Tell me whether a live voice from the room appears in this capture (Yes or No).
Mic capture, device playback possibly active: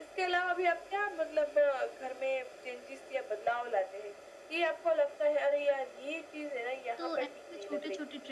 Yes